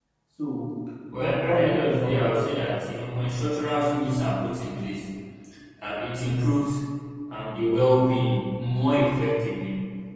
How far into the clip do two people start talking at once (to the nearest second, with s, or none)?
1 s